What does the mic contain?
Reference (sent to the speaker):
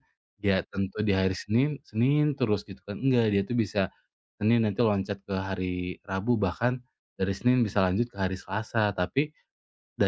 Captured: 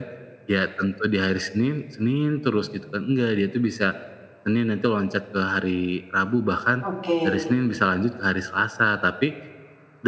both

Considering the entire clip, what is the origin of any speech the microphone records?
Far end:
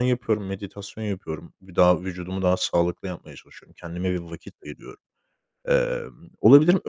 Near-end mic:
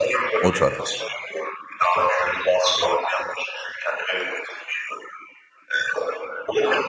both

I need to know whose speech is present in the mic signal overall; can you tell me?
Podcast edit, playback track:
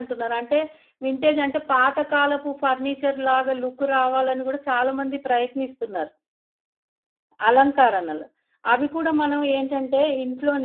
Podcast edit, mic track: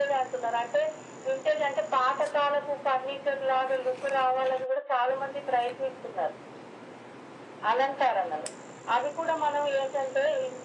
echo only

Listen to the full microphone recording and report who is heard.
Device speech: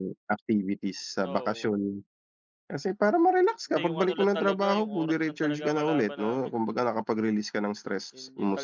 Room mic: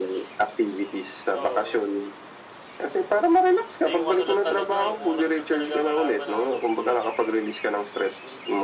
echo only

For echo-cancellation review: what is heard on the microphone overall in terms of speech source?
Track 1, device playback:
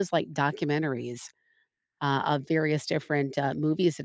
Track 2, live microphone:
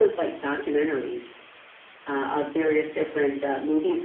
echo only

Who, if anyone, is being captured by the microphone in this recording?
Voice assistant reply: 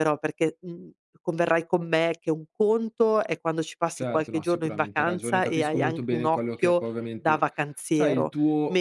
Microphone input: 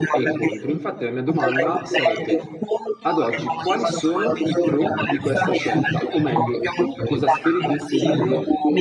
both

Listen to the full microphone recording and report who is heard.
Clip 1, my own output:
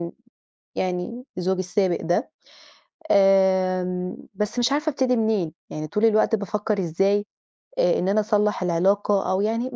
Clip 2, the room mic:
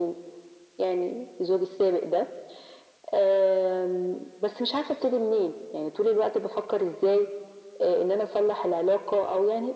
echo only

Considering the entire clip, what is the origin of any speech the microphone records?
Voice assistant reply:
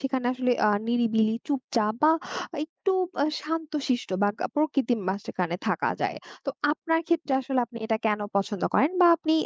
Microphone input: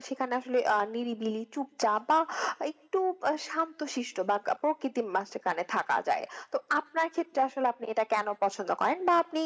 echo only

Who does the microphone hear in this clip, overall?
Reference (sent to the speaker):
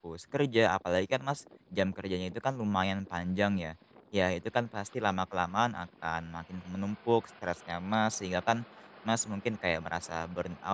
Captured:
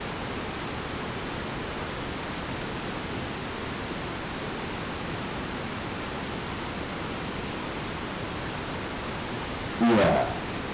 user only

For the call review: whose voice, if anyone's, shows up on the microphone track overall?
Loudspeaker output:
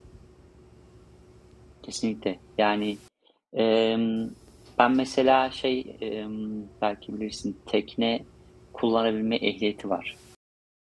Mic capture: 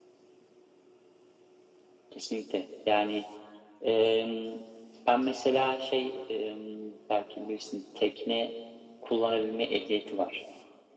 echo only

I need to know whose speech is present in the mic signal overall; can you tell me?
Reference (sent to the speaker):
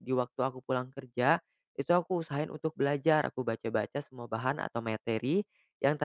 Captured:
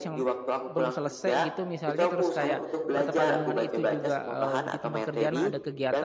both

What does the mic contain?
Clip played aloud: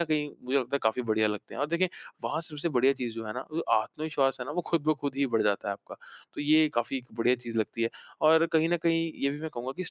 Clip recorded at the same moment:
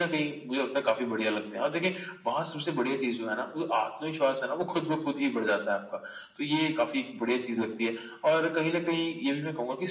echo only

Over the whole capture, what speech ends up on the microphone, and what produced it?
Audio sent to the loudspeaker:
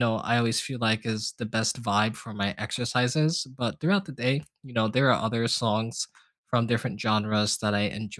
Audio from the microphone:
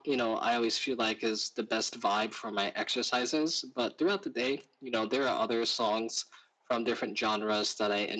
echo only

